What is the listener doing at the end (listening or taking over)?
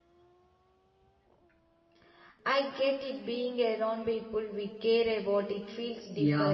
taking over